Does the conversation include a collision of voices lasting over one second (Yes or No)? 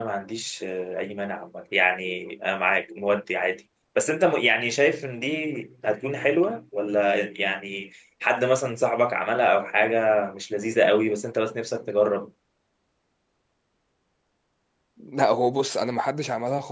No